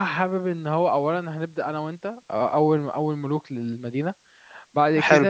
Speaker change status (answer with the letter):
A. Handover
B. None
A